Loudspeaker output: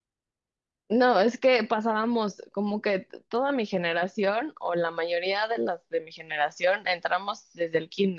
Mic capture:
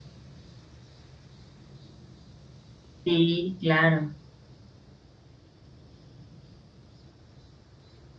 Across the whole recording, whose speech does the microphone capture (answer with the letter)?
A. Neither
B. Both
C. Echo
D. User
D